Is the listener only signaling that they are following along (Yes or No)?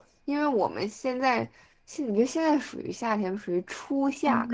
No